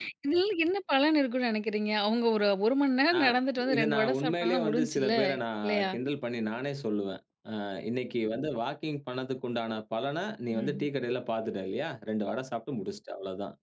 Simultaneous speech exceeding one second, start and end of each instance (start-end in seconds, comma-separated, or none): 3.8-5.1